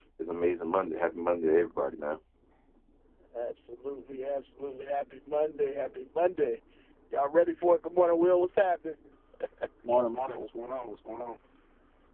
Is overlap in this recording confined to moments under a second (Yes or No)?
Yes